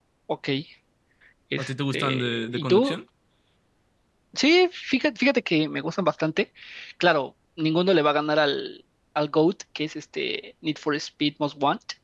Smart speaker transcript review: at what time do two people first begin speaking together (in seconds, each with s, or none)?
1.6 s